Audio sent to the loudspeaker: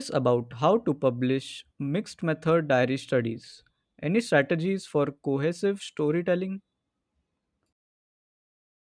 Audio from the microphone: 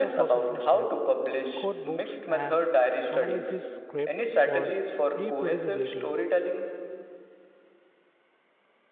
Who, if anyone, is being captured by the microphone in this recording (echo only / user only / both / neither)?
both